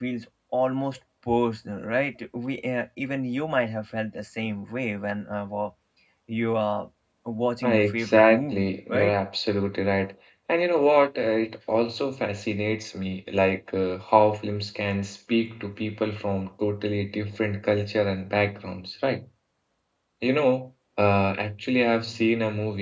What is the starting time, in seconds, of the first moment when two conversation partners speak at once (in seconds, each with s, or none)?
7.6 s